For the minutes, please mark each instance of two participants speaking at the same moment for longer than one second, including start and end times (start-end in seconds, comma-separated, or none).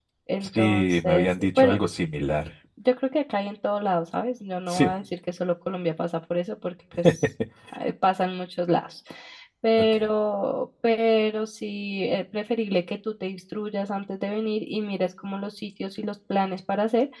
0.6-1.8